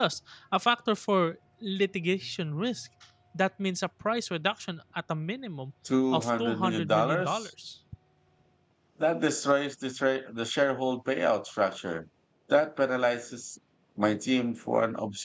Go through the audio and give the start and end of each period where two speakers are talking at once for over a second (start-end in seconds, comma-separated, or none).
6.1-7.5